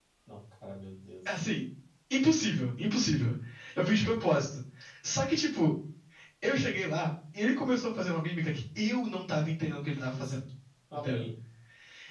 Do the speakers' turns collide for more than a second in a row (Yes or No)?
No